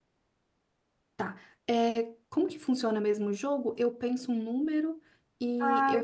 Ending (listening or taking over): taking over